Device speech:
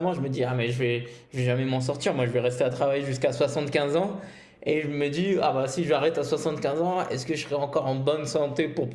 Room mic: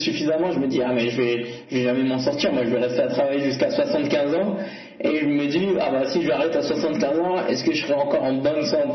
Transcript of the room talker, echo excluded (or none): none